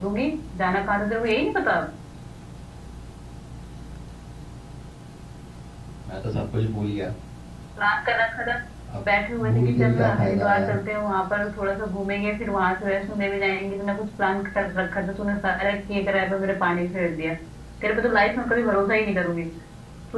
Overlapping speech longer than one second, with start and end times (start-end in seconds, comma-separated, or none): 9.5-10.8